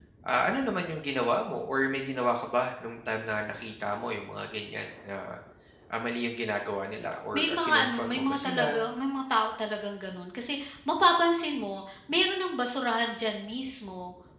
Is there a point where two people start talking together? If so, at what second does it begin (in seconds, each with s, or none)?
7.3 s